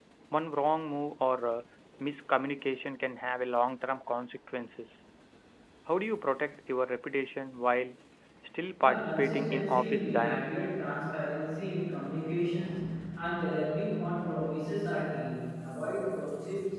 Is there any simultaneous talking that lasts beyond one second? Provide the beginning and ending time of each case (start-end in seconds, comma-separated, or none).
8.8-10.7